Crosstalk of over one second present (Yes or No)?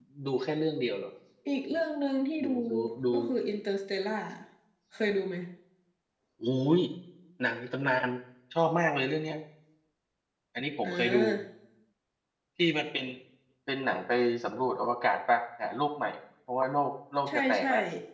No